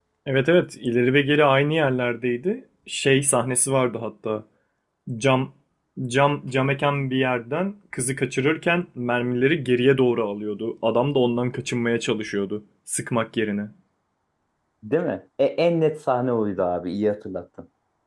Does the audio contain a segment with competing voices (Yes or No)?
No